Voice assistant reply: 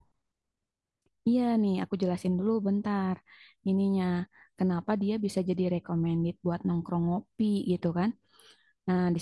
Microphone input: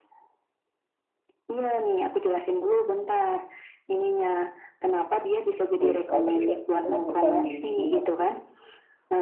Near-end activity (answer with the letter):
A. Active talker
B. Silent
A